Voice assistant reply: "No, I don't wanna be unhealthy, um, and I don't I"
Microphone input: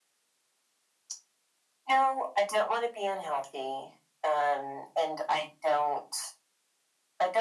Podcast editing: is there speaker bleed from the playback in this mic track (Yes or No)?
Yes